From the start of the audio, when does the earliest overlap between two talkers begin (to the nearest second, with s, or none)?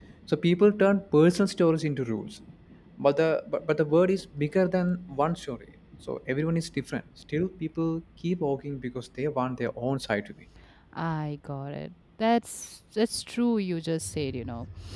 none